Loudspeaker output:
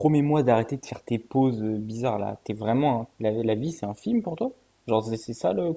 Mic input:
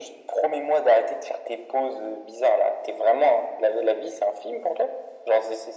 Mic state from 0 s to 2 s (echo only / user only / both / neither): echo only